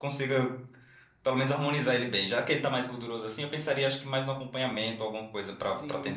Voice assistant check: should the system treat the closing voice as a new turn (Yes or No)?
Yes